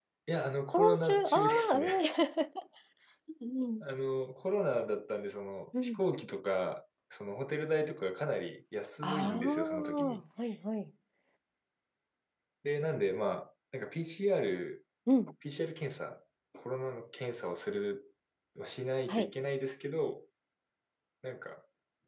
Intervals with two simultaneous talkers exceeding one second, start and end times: 0.7-2.0, 9.0-10.2

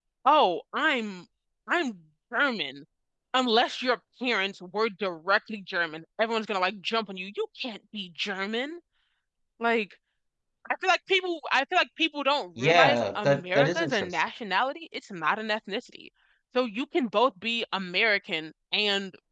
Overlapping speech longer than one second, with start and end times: 12.6-14.2

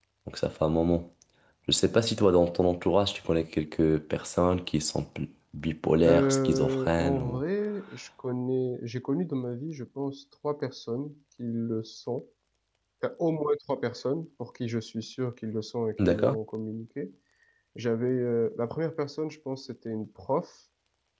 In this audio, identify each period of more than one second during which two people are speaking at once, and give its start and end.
6.0-7.4

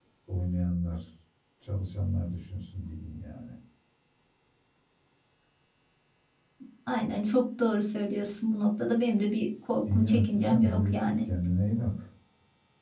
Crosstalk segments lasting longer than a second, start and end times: 9.9-11.2

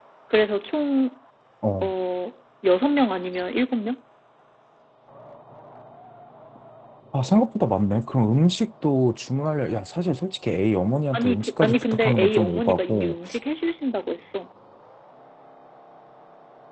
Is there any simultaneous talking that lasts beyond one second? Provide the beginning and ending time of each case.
11.1-13.1

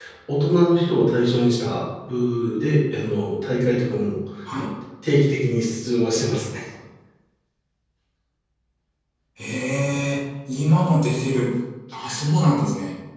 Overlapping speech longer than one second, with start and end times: none

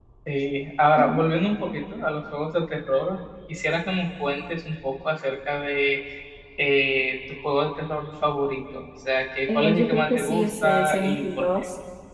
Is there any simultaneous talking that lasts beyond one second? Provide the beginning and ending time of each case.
9.5-11.5

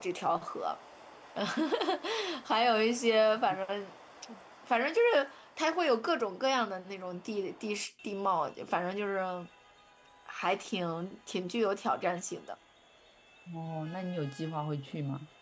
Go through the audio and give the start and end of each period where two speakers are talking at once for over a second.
none

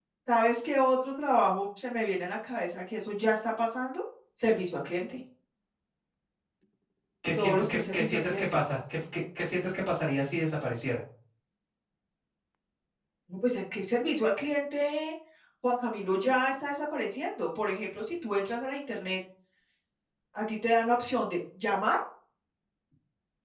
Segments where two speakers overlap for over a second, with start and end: 7.3-8.6

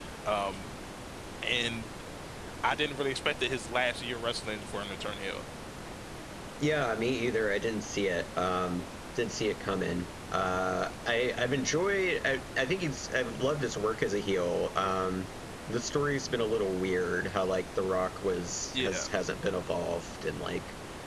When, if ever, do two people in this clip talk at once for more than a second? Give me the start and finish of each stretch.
none

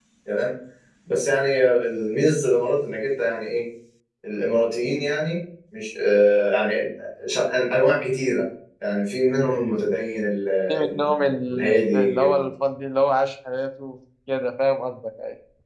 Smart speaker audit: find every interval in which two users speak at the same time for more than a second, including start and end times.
10.7-12.2

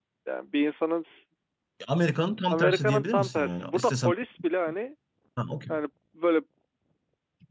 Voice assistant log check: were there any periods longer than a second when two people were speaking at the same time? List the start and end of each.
2.5-4.1

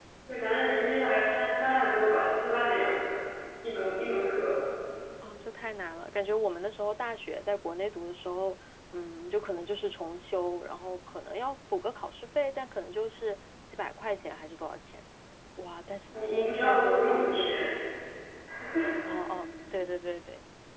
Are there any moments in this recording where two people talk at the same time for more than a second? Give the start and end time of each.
16.1-17.5

